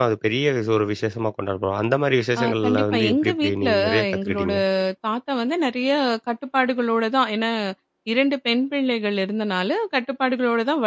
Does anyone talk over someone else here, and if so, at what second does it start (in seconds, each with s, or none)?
2.4 s